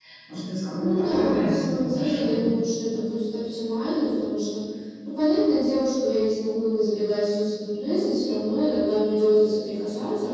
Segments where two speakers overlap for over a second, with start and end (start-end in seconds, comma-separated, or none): 0.8-2.5